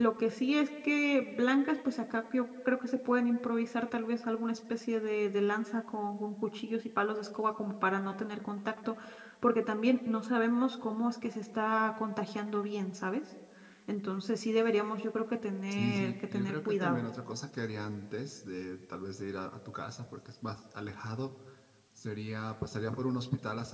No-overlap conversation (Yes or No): No